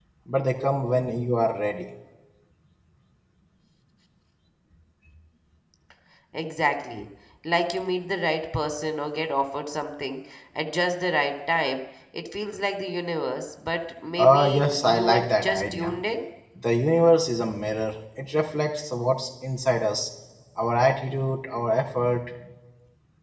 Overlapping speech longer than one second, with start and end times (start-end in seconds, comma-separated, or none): 14.2-15.9